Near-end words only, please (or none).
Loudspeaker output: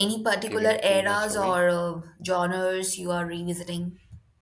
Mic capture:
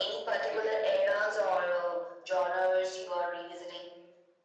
none